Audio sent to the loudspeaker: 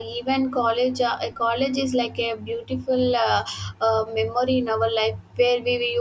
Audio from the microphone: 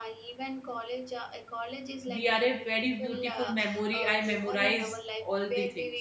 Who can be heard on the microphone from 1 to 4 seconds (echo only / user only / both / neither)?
both